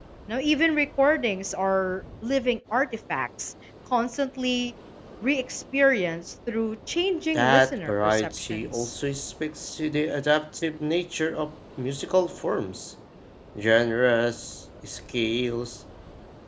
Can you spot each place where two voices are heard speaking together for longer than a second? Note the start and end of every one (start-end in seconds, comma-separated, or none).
7.3-8.9